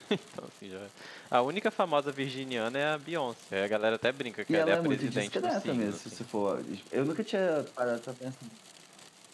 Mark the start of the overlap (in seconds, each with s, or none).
4.5 s